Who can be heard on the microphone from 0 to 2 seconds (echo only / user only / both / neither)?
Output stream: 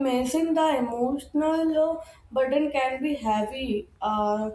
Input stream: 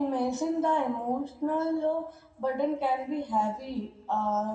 echo only